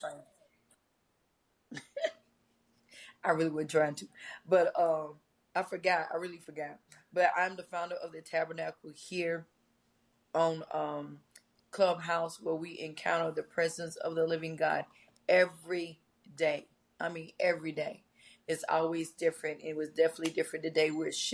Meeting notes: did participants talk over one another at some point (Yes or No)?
No